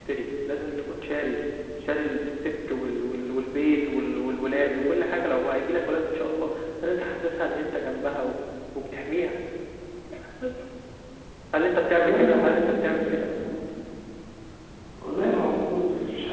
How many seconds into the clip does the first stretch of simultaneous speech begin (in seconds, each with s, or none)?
11.9 s